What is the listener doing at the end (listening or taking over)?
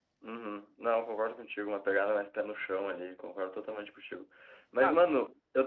listening